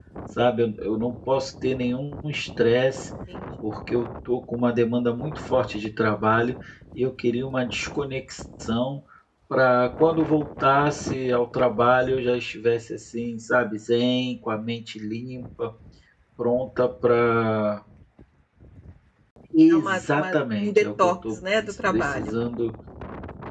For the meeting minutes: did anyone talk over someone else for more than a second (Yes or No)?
Yes